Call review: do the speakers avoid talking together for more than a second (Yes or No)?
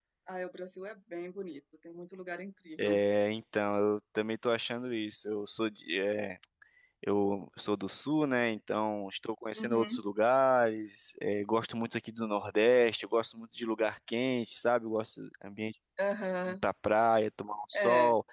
Yes